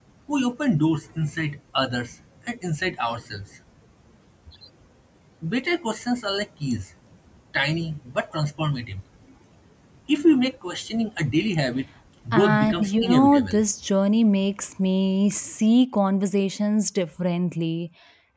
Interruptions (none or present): present